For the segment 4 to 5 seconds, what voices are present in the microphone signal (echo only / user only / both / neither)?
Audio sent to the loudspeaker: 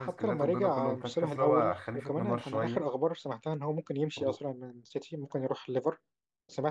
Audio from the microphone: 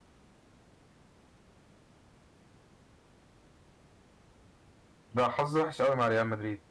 neither